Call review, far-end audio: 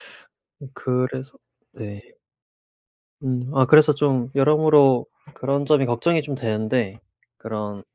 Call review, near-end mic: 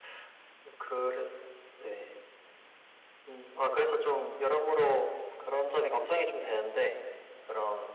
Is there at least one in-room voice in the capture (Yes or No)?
No